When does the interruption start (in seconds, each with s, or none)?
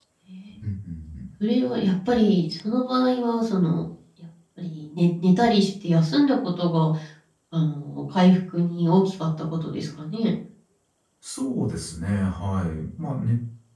none